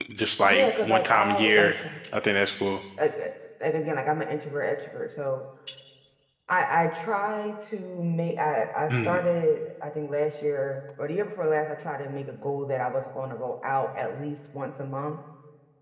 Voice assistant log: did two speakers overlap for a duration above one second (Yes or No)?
Yes